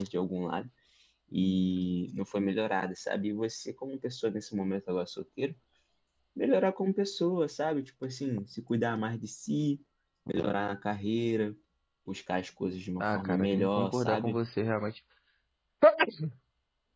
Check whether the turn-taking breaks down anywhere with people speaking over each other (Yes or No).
Yes